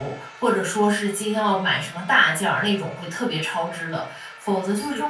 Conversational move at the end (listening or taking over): listening